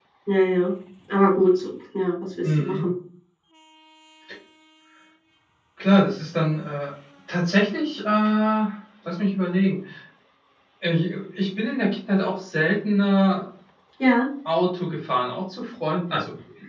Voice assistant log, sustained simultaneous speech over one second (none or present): none